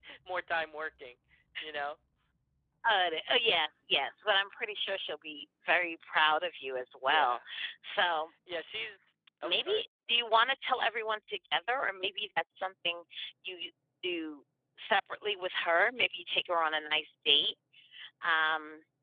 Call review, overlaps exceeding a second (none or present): none